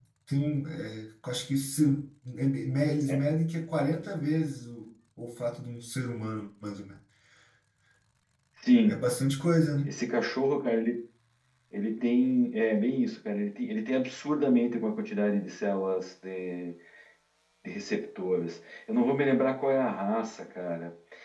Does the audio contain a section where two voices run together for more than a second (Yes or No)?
No